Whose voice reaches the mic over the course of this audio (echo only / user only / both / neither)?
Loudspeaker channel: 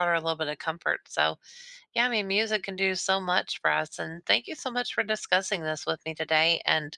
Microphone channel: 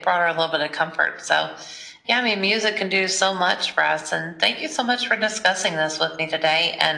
echo only